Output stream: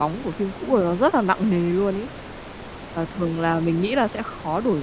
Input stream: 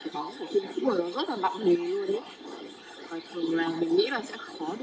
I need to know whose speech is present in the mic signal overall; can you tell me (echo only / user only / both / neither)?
echo only